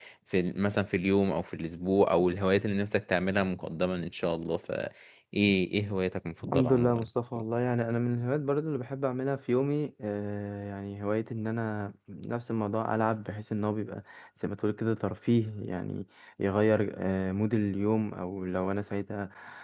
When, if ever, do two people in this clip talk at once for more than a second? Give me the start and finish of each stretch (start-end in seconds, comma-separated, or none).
none